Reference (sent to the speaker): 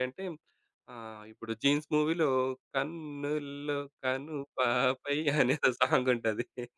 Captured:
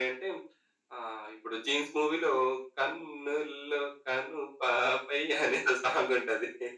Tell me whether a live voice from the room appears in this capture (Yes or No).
No